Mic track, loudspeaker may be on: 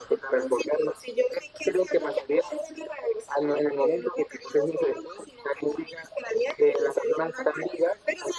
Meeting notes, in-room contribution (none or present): none